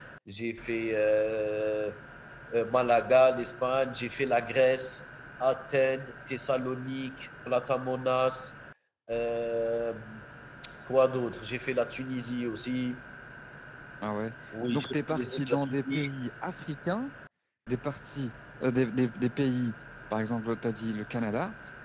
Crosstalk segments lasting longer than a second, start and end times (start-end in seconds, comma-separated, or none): 14.7-16.0